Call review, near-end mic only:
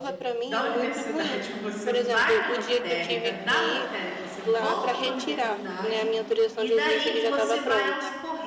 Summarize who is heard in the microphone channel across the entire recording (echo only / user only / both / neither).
both